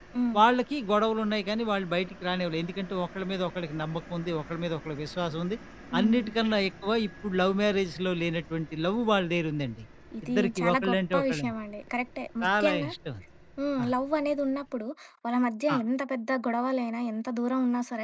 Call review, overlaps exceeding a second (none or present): present